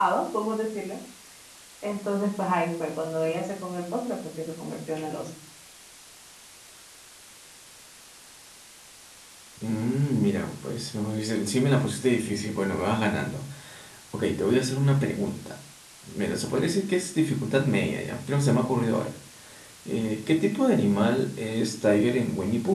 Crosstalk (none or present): none